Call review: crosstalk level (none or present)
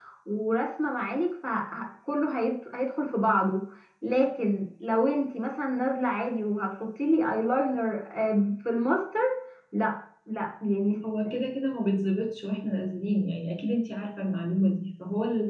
none